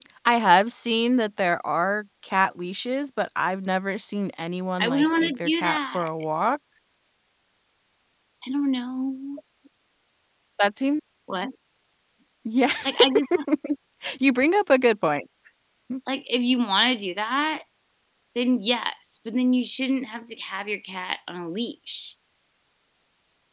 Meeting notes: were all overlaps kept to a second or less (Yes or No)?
No